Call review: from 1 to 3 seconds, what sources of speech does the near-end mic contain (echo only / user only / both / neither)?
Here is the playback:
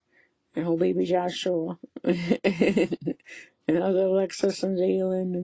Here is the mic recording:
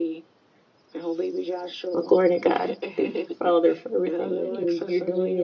both